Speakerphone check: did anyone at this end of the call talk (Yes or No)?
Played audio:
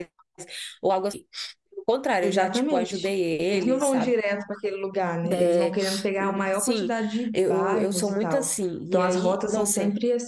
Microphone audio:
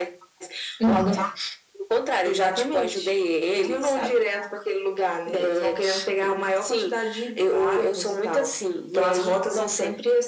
Yes